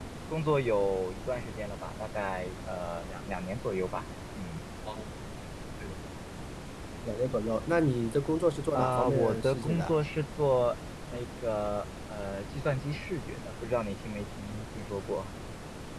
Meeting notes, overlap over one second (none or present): present